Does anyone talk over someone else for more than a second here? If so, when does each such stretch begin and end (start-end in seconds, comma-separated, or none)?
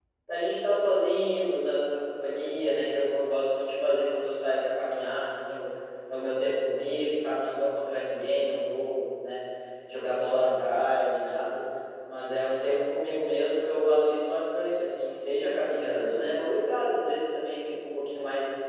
none